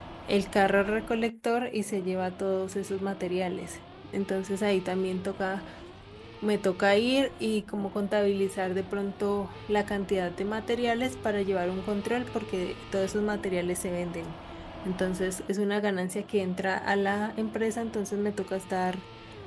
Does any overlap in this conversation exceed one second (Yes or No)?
No